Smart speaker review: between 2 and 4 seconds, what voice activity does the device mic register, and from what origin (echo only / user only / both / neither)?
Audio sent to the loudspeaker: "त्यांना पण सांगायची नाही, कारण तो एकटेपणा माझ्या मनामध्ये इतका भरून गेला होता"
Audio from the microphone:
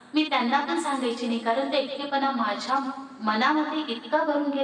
echo only